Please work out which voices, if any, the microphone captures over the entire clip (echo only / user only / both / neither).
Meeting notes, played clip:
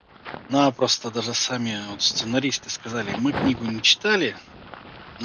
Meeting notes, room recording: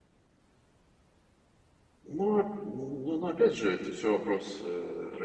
user only